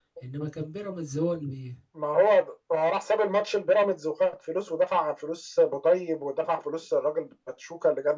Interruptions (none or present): none